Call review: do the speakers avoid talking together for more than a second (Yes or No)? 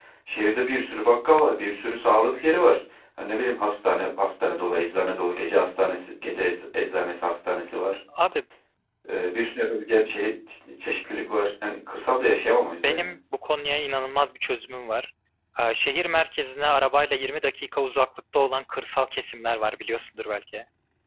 Yes